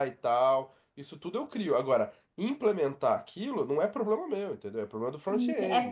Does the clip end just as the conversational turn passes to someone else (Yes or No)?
Yes